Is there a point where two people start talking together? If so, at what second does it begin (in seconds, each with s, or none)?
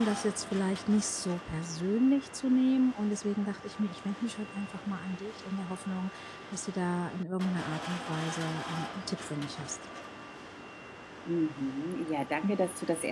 none